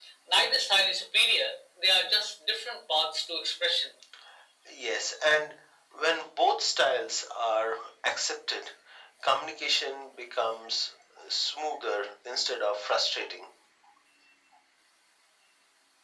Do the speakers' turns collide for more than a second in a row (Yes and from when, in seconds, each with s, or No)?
No